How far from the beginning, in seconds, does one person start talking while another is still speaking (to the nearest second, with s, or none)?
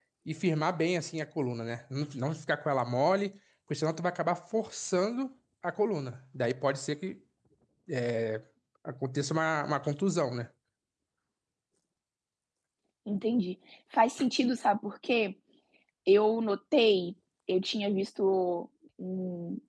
none